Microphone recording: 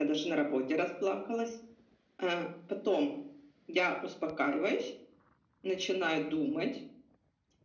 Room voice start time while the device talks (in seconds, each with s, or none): none